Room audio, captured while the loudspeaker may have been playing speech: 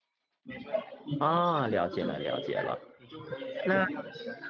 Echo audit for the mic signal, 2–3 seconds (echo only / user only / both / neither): both